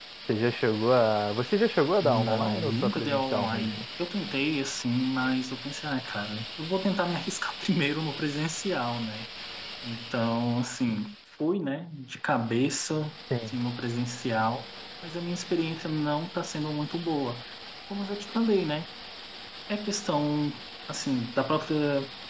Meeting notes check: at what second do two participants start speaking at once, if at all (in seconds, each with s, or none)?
2.0 s